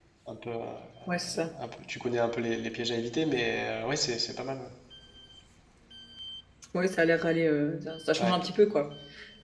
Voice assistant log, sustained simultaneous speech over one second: none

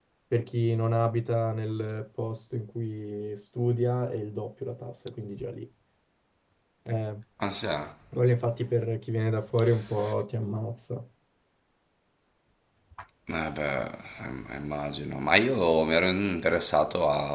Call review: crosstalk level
none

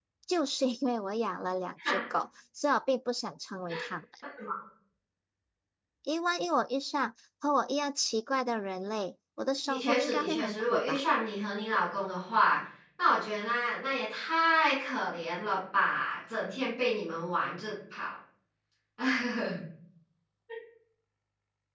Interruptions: present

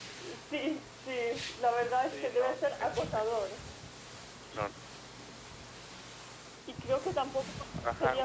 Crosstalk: present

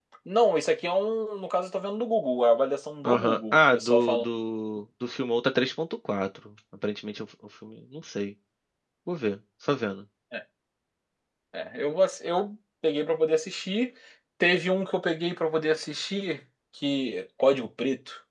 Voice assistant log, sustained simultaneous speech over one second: present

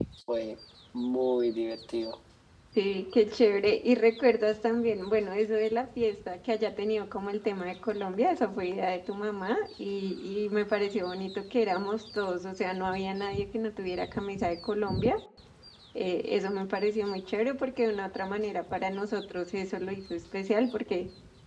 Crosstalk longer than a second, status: none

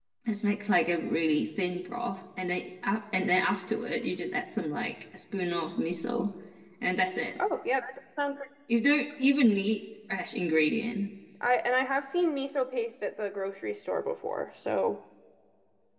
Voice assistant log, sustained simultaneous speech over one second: none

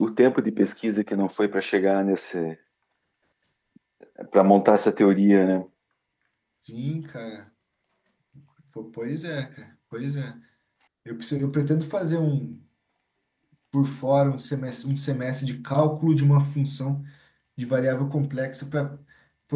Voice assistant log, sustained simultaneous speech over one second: none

